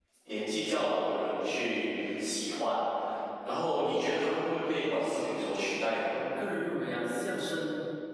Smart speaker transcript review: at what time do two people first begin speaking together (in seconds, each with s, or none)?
none